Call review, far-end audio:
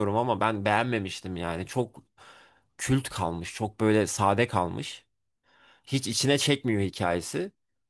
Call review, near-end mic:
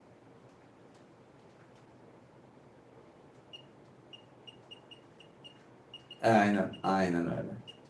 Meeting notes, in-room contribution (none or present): present